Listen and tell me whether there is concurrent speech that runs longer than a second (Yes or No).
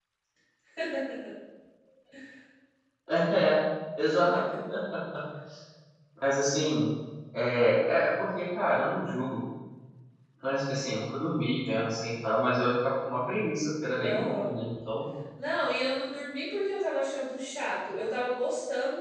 No